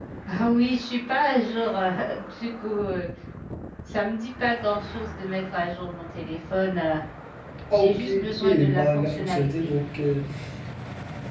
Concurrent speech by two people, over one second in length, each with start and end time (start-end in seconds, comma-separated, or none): 7.7-9.7